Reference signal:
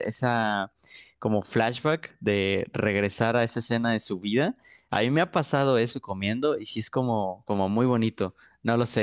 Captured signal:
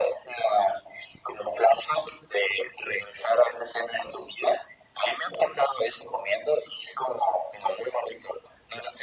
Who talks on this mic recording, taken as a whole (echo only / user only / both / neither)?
echo only